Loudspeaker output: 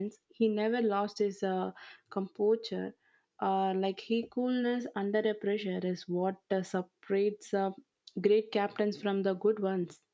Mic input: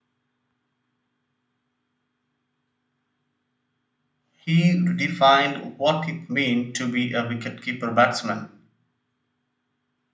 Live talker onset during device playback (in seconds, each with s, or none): 4.3 s